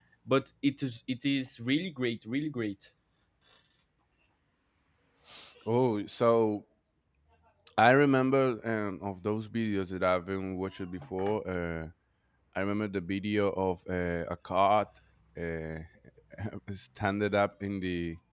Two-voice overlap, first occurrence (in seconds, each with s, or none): none